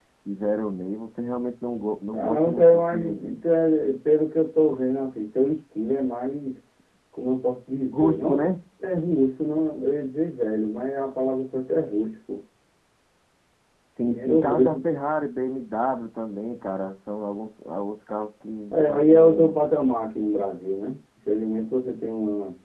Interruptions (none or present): present